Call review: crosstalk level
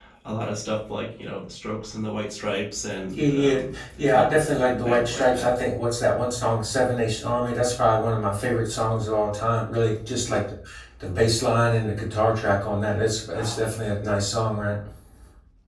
present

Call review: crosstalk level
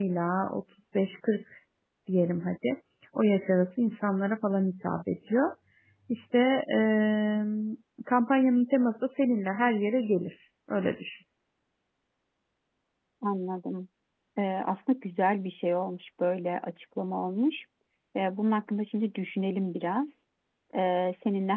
none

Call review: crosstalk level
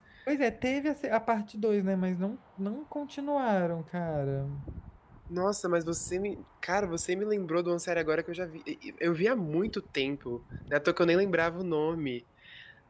none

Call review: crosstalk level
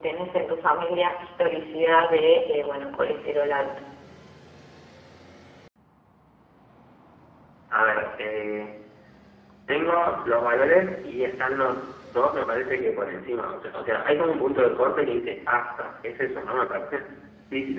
none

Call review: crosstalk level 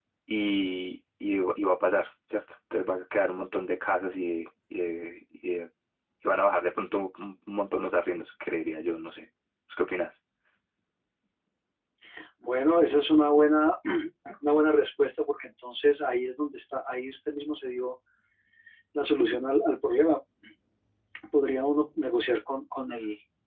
none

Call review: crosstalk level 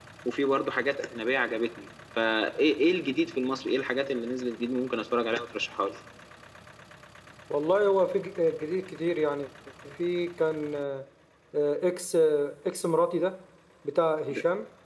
none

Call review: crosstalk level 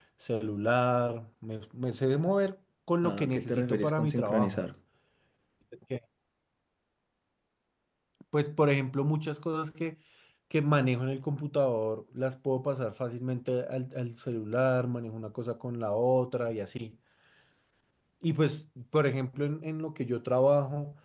present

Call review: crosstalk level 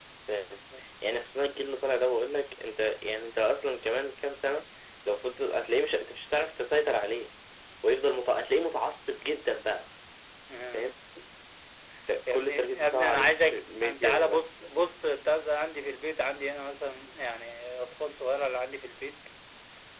present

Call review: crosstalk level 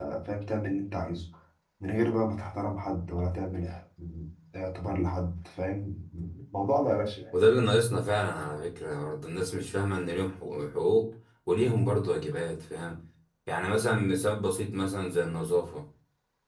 none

